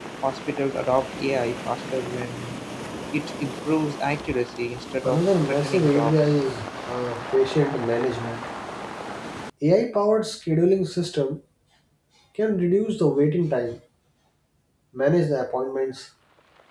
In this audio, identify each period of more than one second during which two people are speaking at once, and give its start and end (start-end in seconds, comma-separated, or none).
5.0-6.3